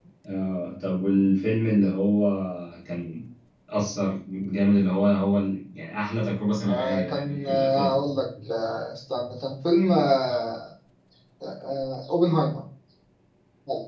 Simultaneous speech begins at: 6.6 s

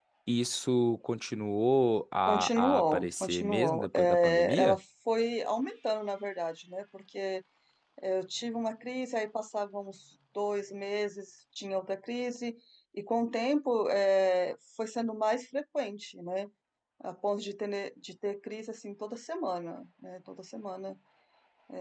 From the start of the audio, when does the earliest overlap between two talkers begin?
2.3 s

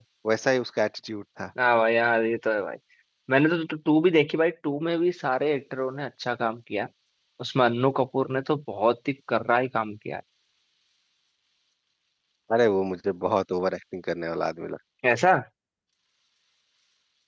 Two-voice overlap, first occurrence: none

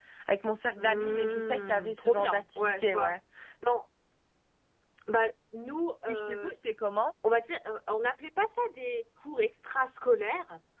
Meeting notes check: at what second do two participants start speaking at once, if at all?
0.8 s

